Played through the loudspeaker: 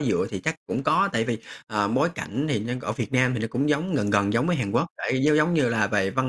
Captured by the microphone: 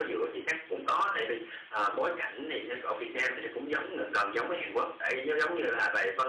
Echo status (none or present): present